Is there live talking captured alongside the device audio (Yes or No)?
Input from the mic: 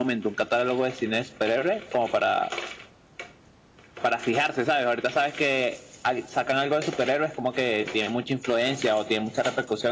No